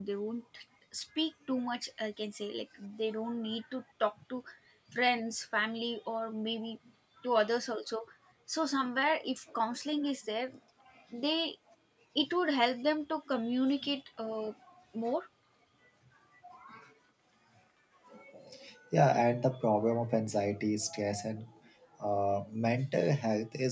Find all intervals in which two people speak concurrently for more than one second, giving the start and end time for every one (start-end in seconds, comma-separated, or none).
none